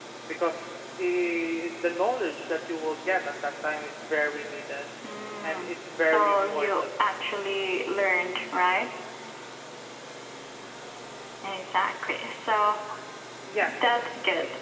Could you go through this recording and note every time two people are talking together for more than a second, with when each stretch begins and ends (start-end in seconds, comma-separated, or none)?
5.5-6.9